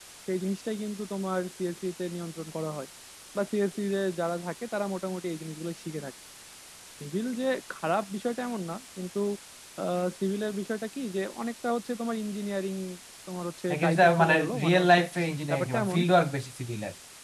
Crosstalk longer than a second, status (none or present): present